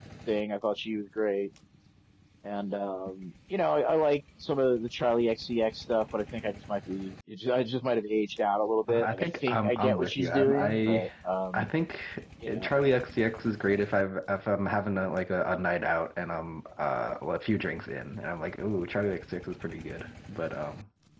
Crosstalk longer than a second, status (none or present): present